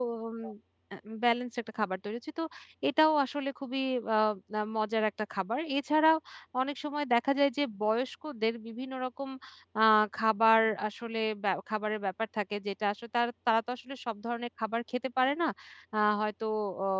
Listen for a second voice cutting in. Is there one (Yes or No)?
No